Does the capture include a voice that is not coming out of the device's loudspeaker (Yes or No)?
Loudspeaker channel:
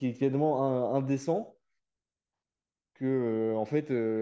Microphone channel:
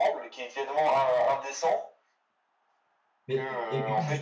Yes